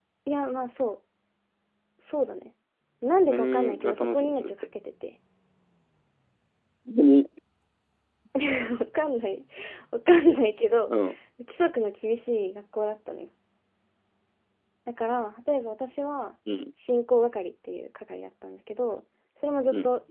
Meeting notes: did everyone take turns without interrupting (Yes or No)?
No